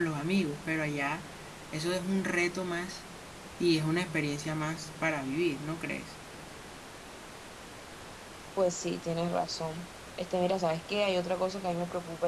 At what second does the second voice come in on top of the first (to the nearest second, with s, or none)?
none